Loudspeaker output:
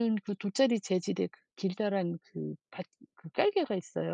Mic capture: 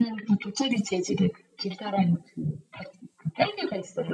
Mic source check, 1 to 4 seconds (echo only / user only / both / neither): echo only